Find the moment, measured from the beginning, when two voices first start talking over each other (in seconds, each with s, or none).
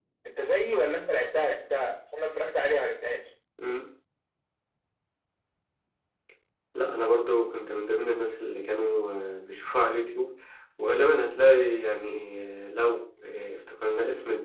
none